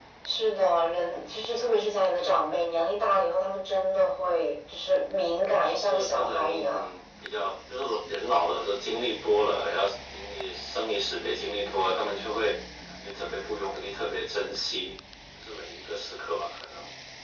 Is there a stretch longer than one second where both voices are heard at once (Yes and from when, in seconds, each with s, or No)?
Yes, from 5.6 s